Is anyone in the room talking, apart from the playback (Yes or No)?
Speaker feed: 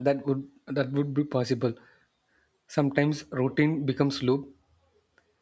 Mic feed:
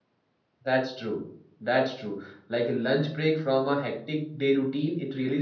Yes